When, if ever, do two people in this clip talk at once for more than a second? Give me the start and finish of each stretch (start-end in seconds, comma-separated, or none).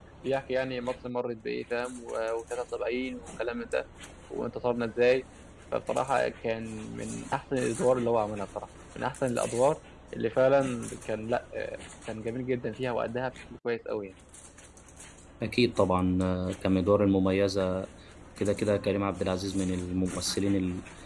none